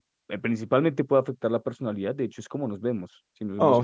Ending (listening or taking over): taking over